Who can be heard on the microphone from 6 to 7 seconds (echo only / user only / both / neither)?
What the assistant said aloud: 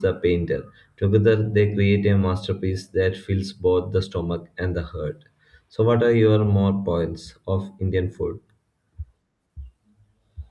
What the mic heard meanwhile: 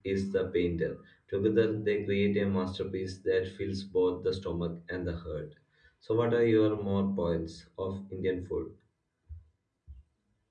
echo only